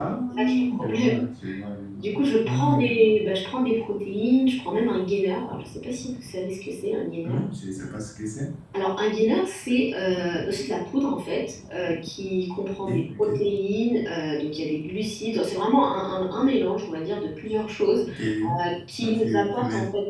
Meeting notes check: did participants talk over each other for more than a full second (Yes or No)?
Yes